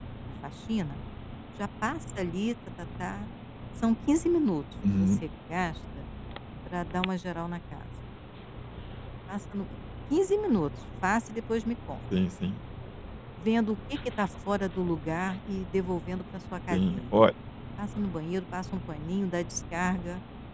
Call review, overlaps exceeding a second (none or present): none